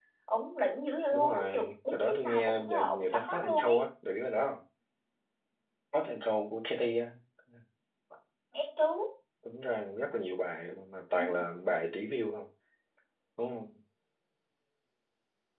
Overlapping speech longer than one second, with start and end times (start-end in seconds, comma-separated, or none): 1.1-3.8